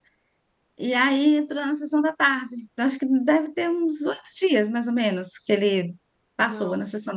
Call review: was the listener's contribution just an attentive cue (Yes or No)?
No